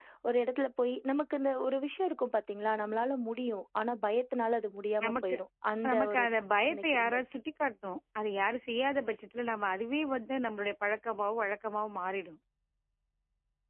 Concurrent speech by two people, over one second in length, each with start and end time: none

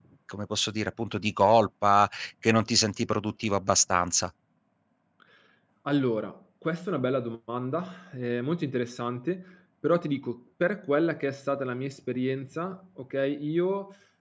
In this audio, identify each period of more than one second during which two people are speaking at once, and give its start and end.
none

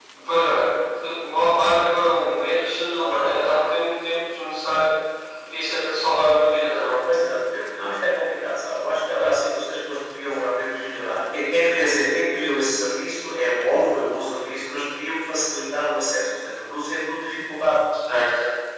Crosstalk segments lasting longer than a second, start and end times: none

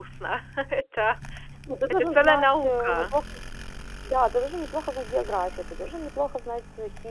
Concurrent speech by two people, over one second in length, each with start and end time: 1.9-3.1

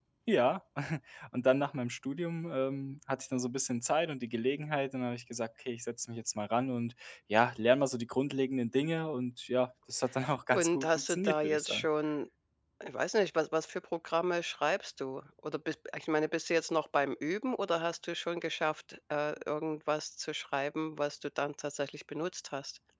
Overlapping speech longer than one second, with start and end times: 10.5-11.9

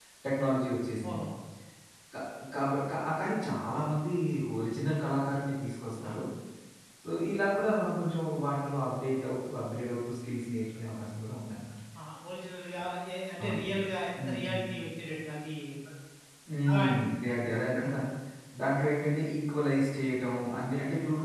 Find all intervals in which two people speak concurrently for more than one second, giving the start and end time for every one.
none

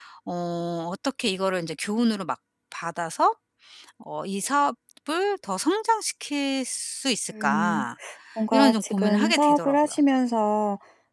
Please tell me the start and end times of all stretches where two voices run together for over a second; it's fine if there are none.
8.5-9.9

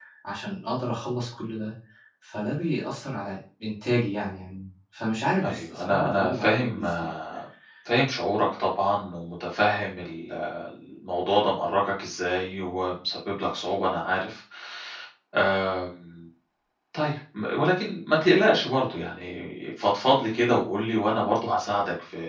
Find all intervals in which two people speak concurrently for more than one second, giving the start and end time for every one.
5.5-7.1

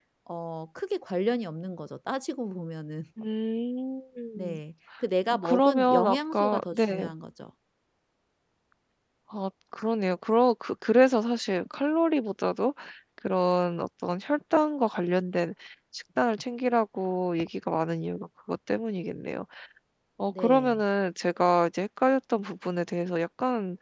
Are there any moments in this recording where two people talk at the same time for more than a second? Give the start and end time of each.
5.5-7.1

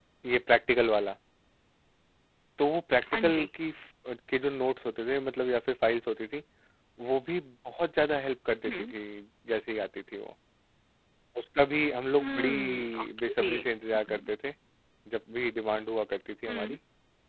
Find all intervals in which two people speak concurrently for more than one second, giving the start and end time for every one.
12.2-13.5

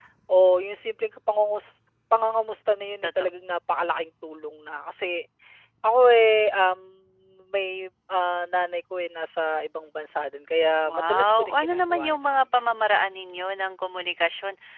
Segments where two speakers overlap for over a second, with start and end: 10.9-12.5

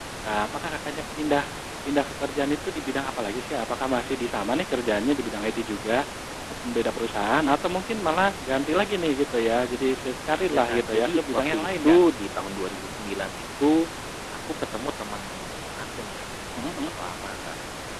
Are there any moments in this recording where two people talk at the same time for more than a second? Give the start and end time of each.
10.5-12.0

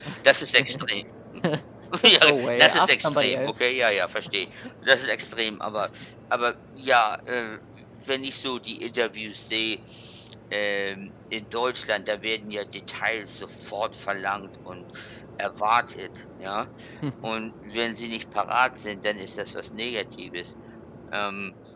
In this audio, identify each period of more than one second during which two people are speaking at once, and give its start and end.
2.0-3.5

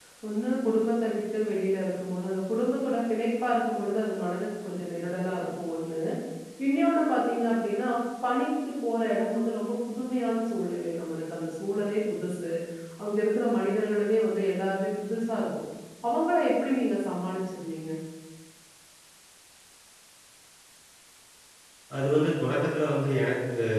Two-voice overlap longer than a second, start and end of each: none

